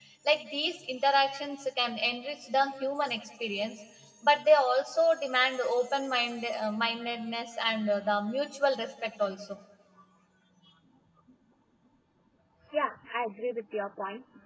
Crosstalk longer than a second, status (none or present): none